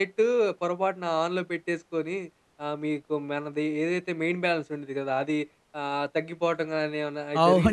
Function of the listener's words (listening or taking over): taking over